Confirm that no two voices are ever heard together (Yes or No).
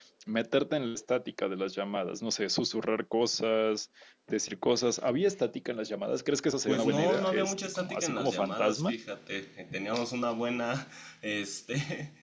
No